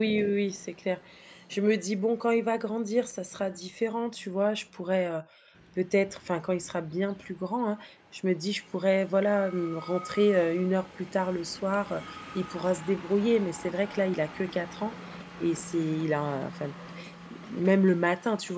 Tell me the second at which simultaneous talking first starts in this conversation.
none

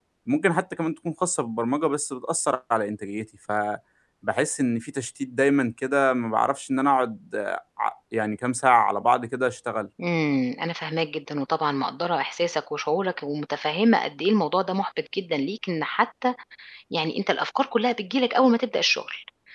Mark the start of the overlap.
none

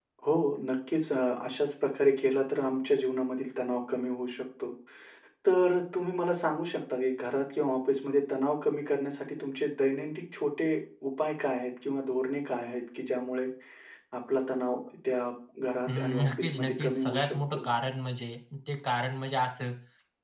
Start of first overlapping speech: 15.9 s

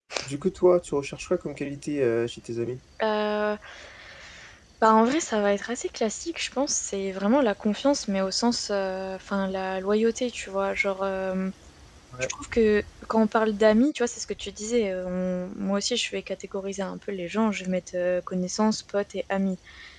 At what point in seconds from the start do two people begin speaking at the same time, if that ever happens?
none

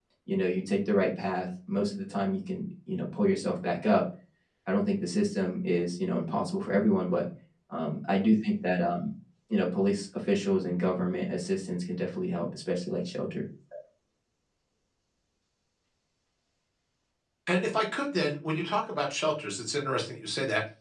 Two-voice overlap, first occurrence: none

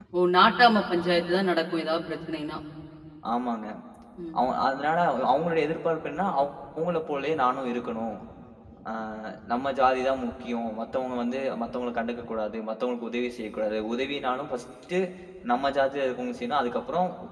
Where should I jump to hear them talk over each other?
none

